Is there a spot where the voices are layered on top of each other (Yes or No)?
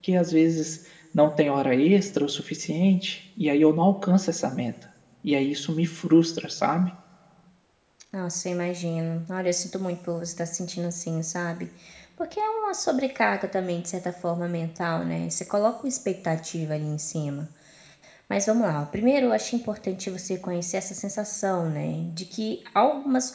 No